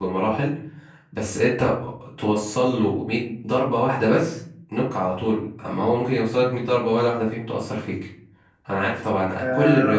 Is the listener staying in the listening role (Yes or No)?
No